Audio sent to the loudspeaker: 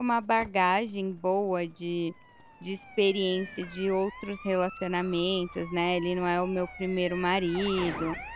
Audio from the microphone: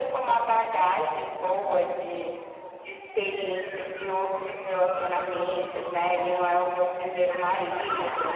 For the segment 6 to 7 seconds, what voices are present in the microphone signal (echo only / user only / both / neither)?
echo only